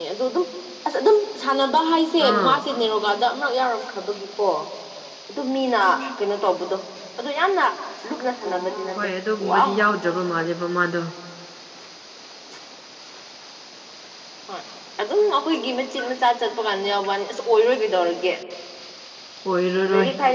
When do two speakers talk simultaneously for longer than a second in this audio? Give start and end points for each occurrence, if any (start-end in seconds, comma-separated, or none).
none